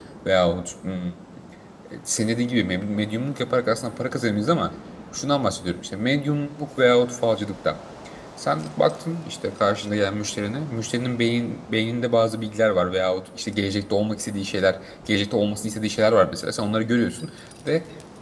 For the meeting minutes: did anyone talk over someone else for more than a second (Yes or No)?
No